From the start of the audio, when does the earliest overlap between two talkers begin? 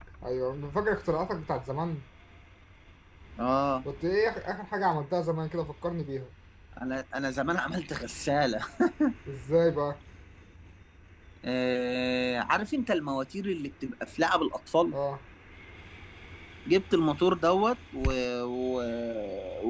none

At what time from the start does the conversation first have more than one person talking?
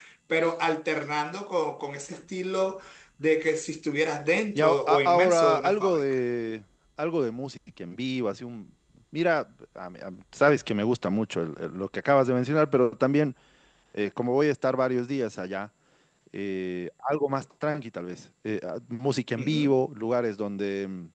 4.5 s

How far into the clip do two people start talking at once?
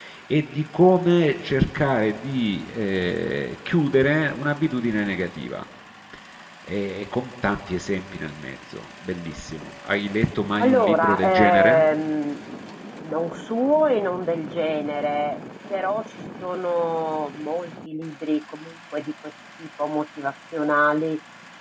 10.6 s

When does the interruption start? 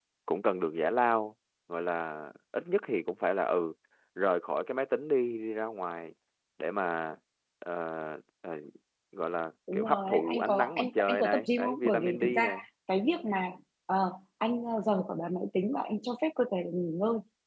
9.7 s

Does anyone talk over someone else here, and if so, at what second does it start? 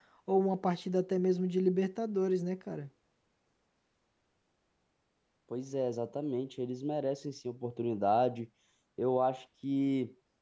none

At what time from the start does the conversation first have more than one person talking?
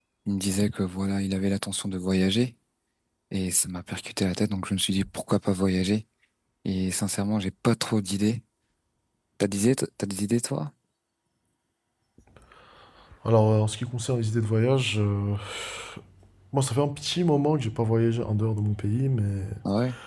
none

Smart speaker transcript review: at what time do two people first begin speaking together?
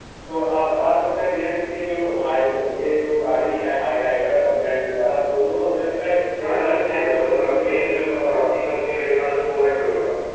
6.4 s

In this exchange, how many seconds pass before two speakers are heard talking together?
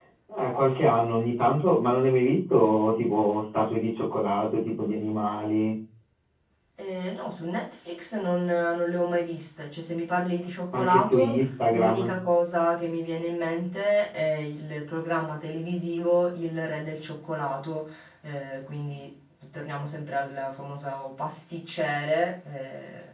10.7 s

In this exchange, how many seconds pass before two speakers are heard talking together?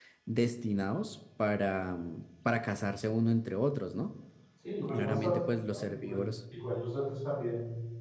4.9 s

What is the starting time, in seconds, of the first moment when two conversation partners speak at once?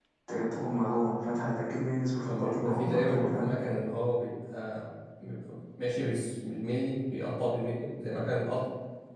2.3 s

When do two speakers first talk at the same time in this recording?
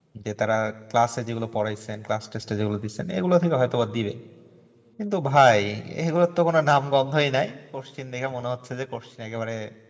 none

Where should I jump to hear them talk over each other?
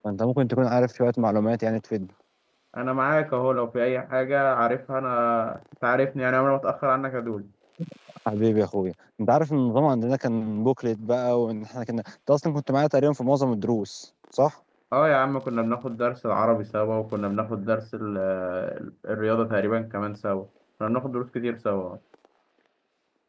none

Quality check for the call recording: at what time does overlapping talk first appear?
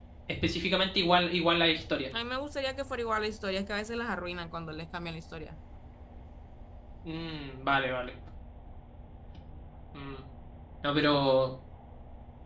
none

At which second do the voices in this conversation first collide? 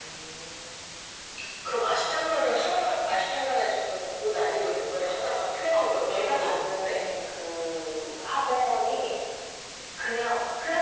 5.7 s

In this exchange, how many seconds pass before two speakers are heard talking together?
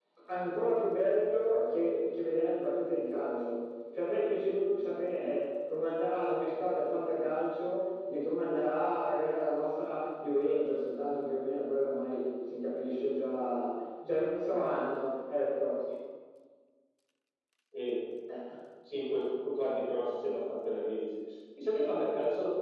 none

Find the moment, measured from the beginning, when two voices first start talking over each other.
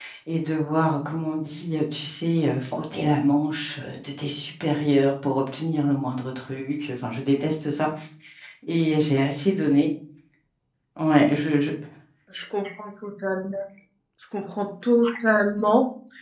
none

